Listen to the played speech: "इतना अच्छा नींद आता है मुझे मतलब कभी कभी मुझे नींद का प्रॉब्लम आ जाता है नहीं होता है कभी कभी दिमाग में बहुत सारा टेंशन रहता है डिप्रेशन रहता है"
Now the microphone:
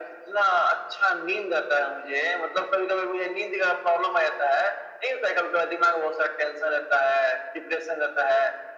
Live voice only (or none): none